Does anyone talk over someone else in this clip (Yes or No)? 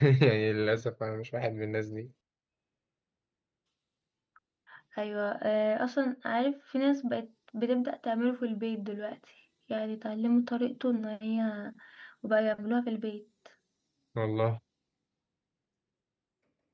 No